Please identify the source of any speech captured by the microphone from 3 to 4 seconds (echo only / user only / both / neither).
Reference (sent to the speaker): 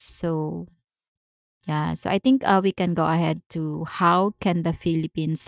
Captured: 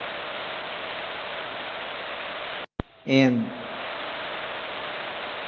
user only